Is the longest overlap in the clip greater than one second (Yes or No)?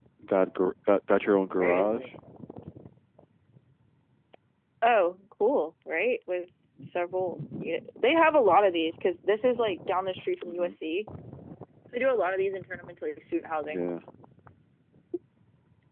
No